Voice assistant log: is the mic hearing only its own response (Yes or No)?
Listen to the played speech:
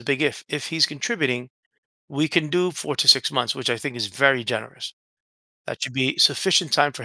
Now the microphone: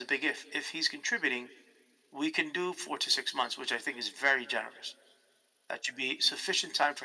Yes